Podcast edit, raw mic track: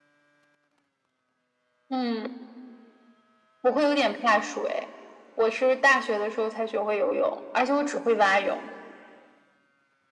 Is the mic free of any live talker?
Yes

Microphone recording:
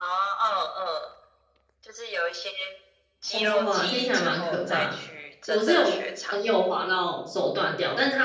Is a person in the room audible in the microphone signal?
Yes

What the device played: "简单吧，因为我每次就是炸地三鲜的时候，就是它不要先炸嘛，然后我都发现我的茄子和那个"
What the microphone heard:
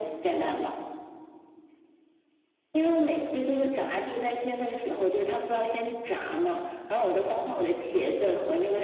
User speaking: No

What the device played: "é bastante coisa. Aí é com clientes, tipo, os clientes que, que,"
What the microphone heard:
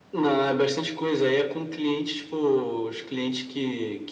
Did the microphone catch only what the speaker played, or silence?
Yes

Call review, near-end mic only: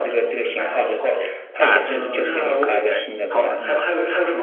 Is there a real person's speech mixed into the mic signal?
Yes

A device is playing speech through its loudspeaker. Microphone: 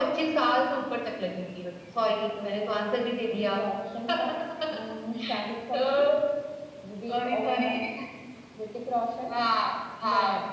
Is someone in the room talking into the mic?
No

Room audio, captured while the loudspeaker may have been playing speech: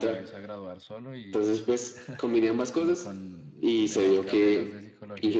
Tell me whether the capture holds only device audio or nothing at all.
No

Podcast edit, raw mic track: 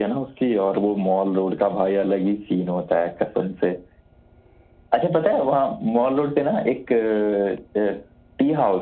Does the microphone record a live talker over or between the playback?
No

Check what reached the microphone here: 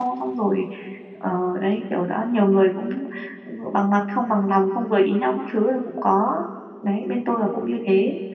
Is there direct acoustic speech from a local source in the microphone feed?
Yes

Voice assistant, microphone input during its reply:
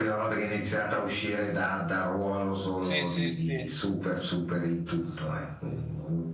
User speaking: Yes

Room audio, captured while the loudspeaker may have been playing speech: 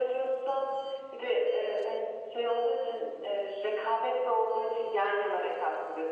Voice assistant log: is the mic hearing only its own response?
Yes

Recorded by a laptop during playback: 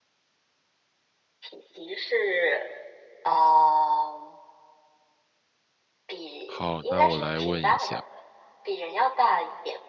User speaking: Yes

